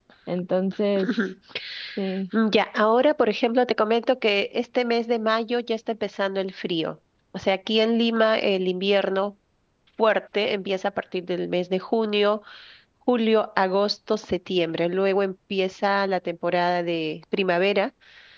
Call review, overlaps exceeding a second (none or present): none